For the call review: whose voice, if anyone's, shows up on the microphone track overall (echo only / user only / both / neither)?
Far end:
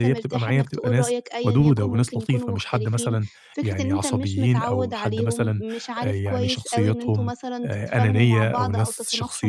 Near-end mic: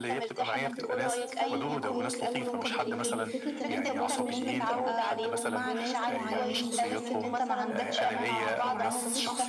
both